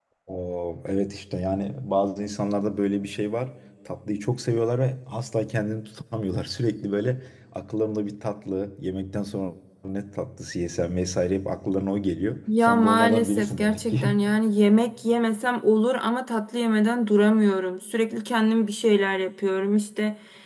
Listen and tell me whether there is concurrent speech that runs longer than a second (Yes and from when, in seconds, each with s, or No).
Yes, from 12.5 s